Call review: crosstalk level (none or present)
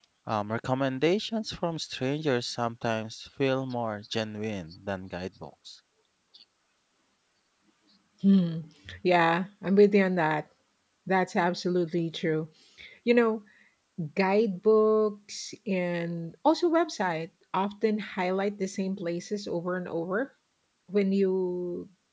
none